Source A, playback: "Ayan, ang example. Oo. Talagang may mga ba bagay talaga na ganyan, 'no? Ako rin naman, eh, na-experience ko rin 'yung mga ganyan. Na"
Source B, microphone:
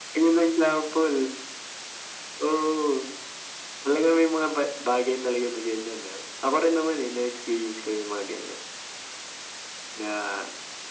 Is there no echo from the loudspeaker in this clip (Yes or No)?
No